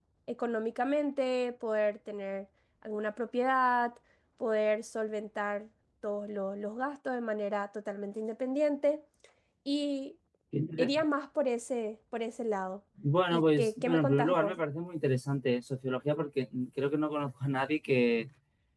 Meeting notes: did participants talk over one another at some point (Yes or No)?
Yes